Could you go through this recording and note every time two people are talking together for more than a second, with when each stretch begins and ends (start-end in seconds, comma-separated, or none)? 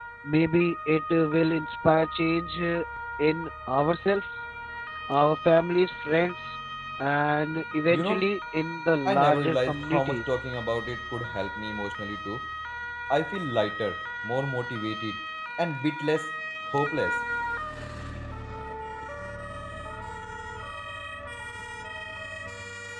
9.1-10.4